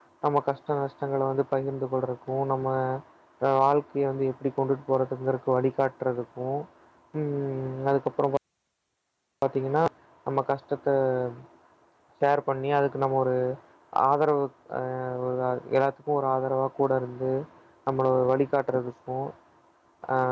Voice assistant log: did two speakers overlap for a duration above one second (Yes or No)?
No